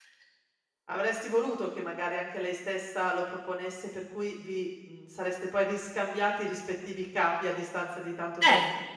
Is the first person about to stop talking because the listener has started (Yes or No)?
Yes